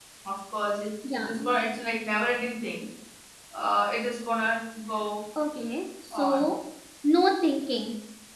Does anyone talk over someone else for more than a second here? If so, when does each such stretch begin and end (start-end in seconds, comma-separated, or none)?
none